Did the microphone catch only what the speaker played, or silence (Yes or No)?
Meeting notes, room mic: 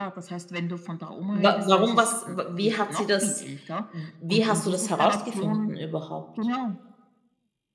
No